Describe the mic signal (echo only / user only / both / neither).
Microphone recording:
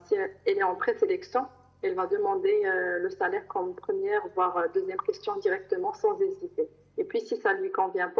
echo only